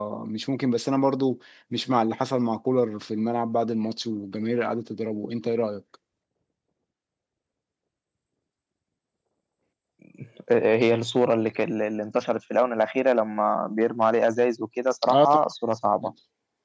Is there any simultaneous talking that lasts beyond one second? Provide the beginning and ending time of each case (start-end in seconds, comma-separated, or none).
none